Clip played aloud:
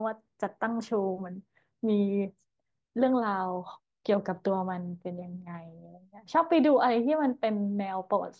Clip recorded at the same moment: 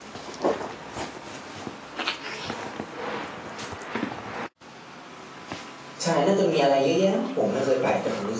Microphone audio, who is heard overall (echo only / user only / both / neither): user only